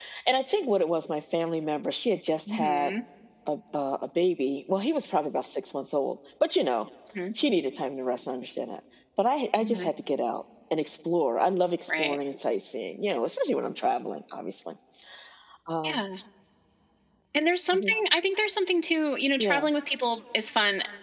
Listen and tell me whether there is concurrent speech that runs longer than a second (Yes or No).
No